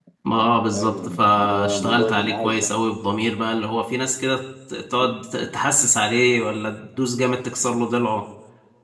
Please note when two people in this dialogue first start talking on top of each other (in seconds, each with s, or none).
0.8 s